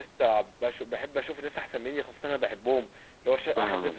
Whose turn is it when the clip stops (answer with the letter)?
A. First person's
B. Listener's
A